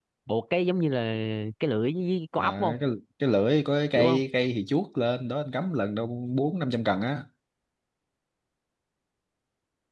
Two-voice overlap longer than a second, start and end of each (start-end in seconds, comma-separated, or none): none